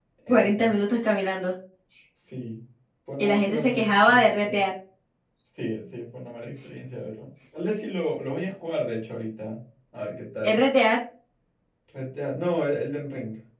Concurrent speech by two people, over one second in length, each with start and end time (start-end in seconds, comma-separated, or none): 3.2-4.6